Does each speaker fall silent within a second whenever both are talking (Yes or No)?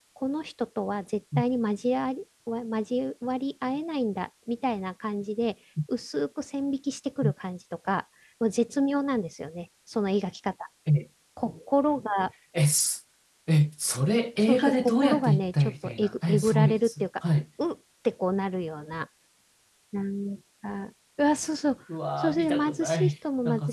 No